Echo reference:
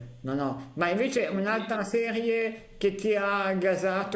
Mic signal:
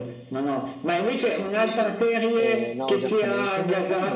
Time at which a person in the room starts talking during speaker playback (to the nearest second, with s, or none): 2 s